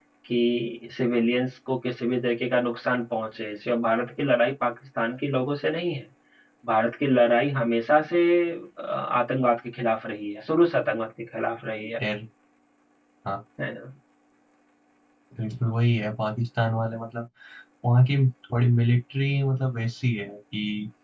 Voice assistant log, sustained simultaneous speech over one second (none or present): none